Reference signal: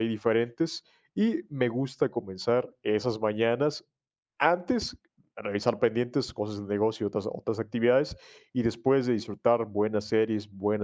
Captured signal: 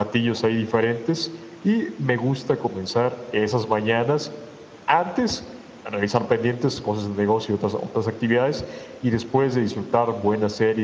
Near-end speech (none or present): none